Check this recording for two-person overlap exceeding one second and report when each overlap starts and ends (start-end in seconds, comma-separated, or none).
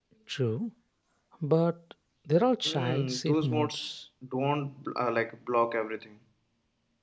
2.7-3.9